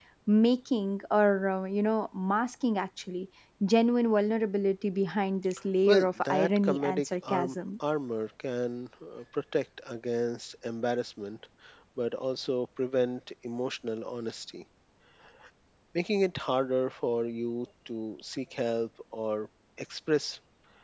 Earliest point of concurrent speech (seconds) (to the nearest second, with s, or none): 6 s